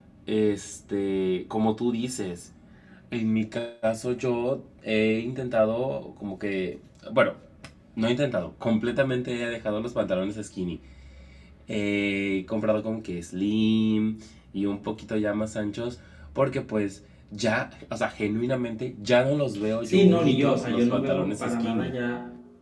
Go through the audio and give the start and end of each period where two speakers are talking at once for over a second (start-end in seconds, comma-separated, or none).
19.8-21.9